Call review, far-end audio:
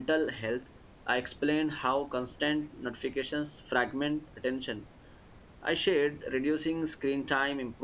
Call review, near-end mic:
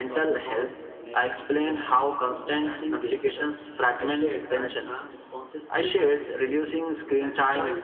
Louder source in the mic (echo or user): echo